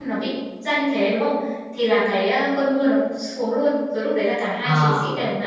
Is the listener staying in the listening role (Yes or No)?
Yes